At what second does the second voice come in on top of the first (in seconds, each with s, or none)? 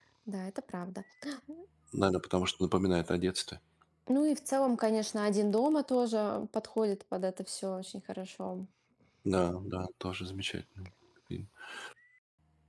none